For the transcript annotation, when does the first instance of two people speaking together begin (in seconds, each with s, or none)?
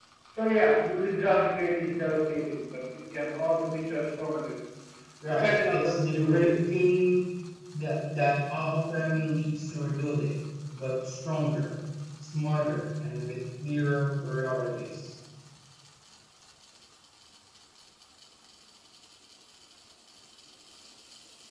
5.3 s